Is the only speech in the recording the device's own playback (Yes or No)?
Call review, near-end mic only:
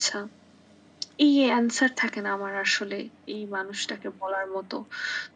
Yes